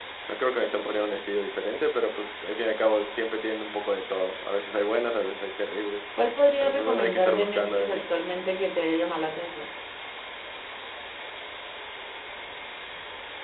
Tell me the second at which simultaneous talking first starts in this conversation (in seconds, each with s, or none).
6.6 s